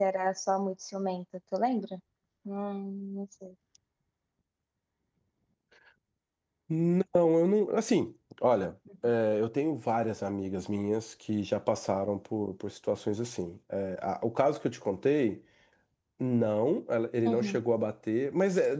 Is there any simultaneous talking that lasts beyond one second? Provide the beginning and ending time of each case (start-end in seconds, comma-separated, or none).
none